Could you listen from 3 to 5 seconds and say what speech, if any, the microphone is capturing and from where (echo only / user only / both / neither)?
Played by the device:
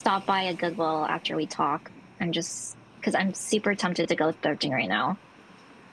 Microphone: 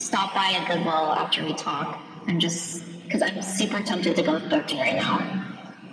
echo only